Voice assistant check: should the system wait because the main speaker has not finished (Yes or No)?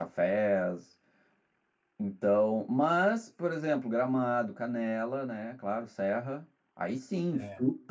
Yes